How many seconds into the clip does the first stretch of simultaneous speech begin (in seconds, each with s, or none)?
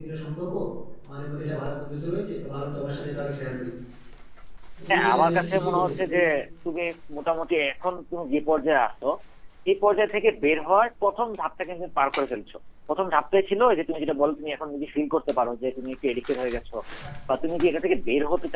4.9 s